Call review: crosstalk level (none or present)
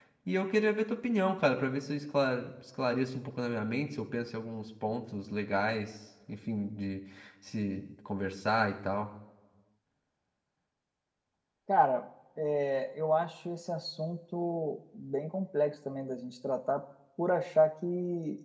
none